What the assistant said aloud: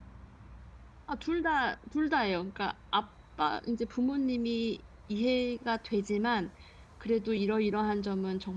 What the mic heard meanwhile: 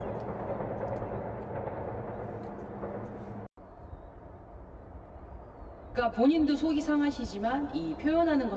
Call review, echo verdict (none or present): none